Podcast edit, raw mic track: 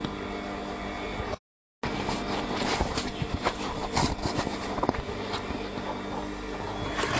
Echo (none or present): none